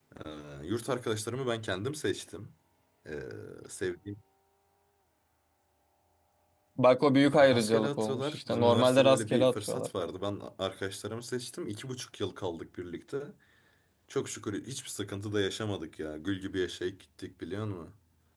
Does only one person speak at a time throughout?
No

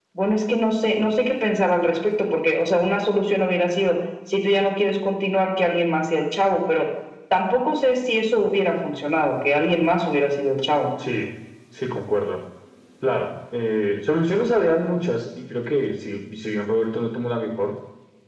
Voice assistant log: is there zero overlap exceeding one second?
Yes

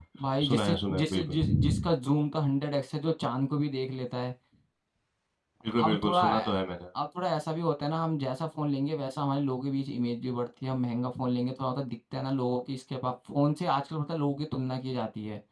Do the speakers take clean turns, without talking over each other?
No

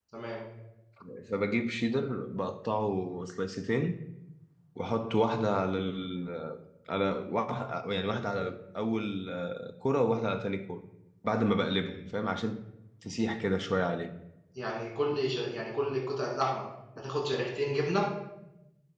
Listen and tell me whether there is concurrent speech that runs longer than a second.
No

